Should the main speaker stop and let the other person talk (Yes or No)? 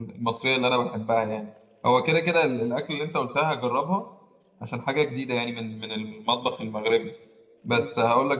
No